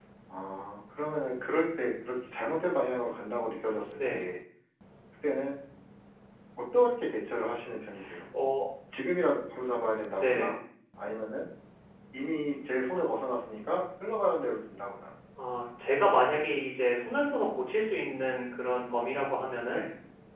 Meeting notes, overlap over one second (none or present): none